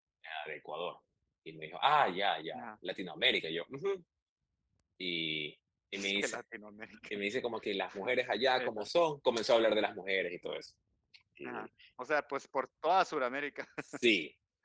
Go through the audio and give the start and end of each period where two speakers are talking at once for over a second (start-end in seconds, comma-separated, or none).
none